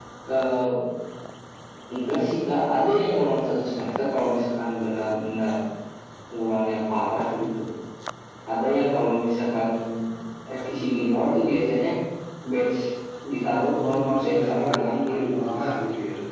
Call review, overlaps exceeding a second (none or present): present